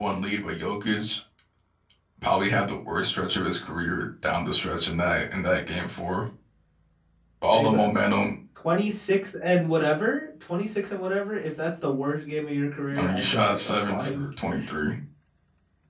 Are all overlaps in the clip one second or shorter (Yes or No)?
No